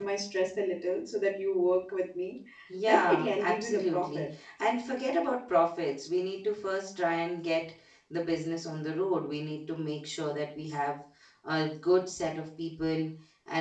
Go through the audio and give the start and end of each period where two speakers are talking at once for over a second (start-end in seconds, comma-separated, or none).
2.9-4.2